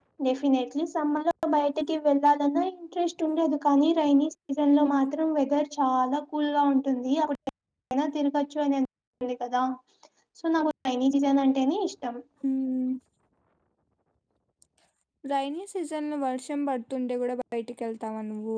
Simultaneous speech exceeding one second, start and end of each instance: none

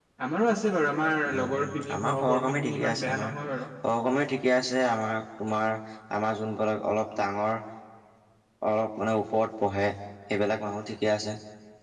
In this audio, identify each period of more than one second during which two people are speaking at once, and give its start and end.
1.3-3.3

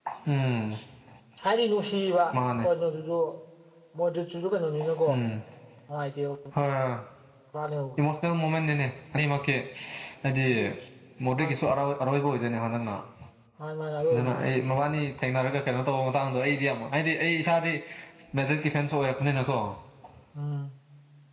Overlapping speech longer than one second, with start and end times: none

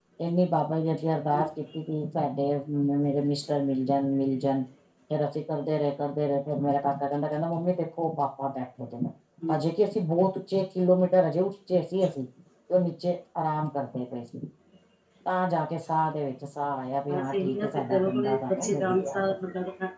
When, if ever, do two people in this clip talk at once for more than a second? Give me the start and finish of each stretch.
17.1-19.3

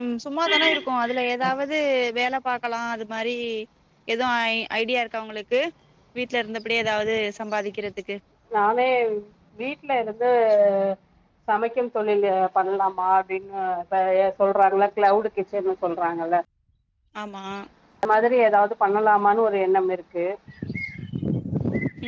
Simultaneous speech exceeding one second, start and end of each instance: none

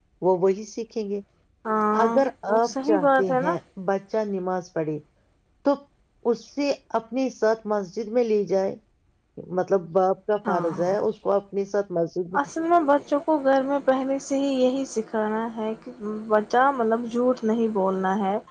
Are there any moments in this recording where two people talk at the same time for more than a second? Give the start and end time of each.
2.0-3.5

